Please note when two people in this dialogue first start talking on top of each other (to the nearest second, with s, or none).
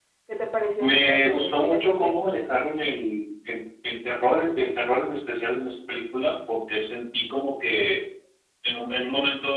1 s